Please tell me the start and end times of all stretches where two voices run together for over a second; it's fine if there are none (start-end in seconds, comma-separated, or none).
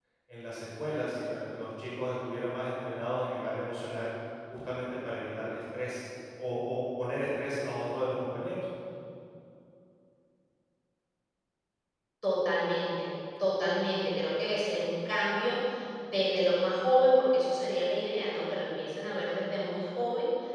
none